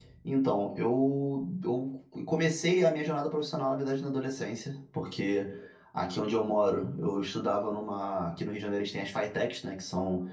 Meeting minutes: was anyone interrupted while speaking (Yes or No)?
No